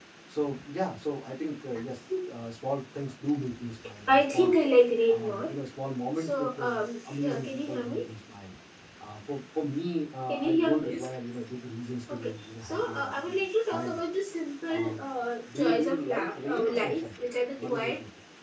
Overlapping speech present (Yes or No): Yes